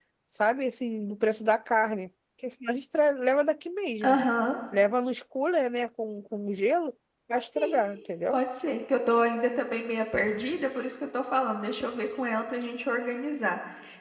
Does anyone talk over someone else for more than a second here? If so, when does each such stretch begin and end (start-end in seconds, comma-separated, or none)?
none